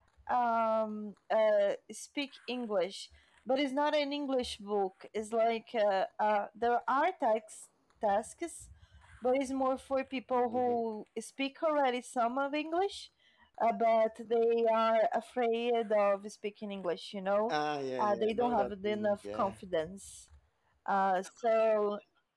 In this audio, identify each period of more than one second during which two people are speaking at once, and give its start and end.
18.0-19.5

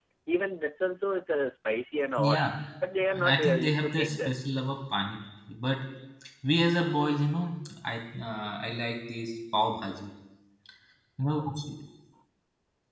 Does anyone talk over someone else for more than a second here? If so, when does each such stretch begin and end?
3.1-4.4

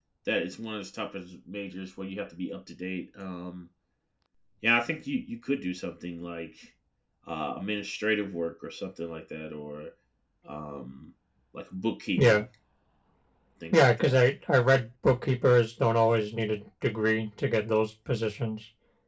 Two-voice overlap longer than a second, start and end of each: none

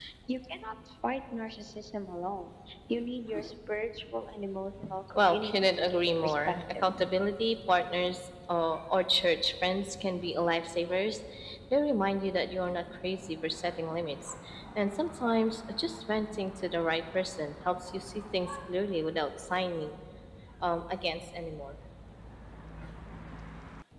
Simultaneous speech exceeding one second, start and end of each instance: 5.2-6.8

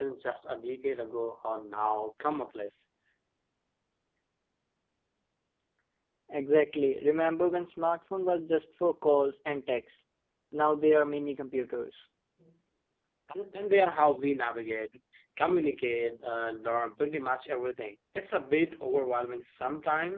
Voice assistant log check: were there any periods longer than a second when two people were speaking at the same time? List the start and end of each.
none

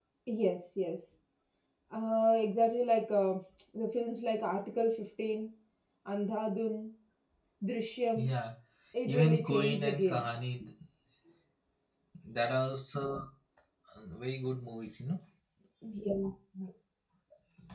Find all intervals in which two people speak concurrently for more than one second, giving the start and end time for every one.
9.1-10.3

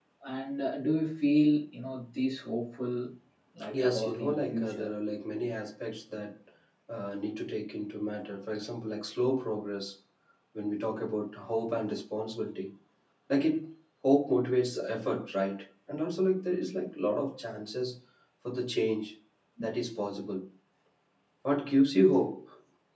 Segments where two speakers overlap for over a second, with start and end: 3.7-4.9

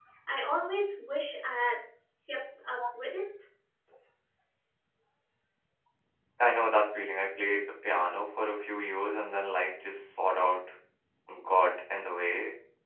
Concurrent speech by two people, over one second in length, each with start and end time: none

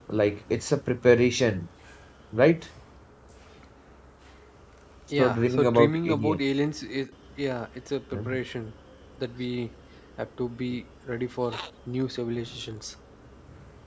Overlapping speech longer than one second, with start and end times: 5.2-6.4

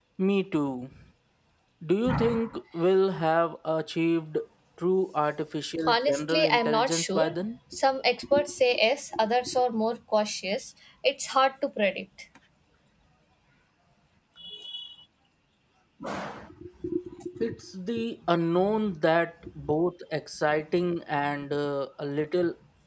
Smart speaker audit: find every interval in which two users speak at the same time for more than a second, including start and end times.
5.9-7.4

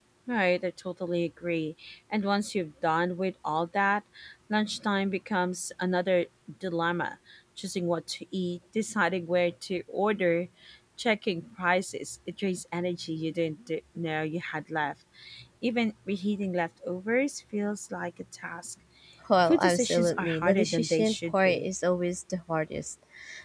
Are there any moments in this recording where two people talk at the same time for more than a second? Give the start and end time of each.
19.5-21.6

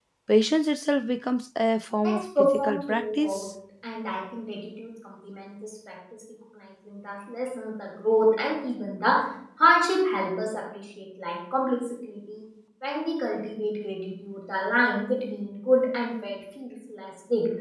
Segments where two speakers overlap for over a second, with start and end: 2.0-3.5

